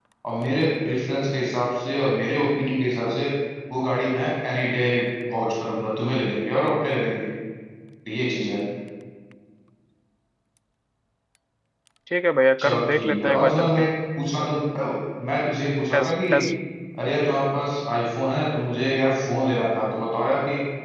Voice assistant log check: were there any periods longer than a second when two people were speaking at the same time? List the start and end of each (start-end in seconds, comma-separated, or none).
12.6-13.8